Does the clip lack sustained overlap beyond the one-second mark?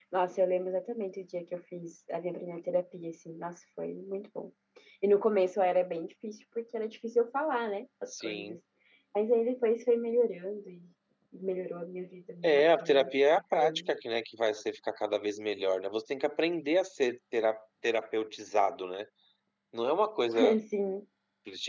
No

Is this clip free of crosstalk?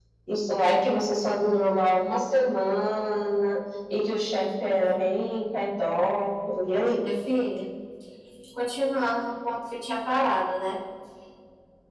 Yes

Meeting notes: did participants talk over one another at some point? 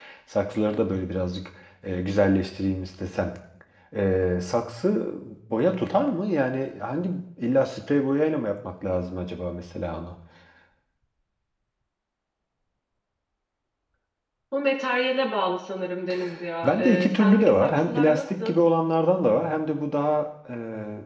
Yes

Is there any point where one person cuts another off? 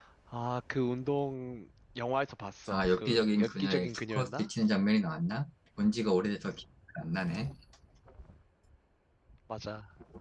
Yes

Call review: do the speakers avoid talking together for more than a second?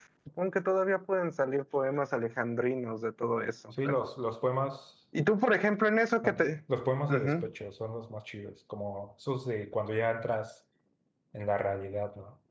Yes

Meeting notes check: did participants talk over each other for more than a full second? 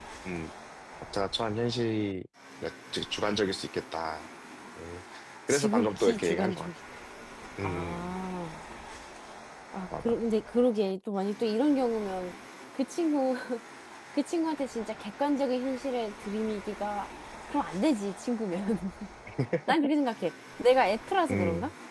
Yes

